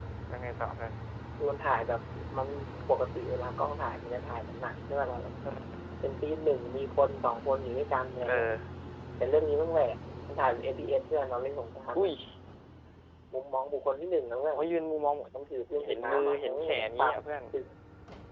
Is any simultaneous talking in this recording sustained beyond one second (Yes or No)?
Yes